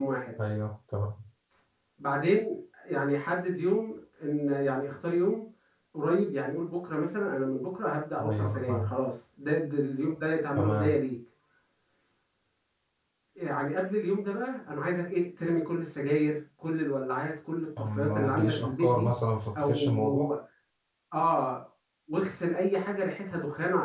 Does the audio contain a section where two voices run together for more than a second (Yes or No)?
Yes